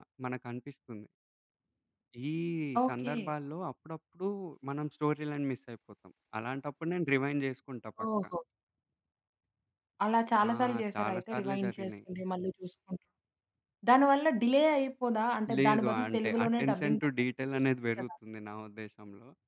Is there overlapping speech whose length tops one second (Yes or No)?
Yes